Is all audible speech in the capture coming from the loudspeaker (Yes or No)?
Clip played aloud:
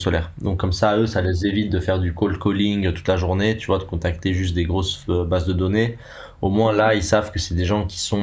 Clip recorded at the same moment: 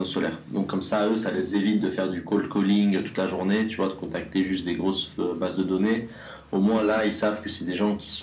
Yes